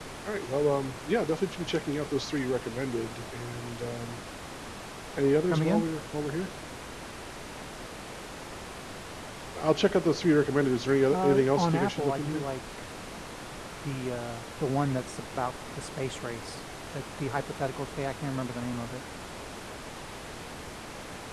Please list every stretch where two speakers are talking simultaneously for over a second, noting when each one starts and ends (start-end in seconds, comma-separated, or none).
11.1-12.5